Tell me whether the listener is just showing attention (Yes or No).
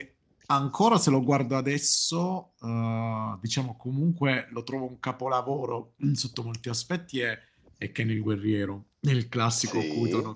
No